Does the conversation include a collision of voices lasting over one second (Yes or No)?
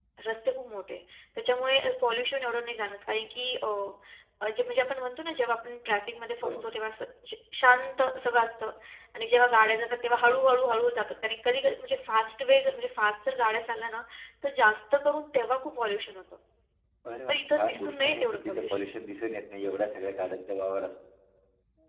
Yes